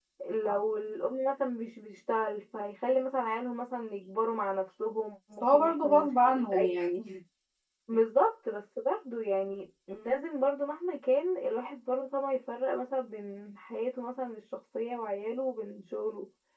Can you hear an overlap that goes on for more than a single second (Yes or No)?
Yes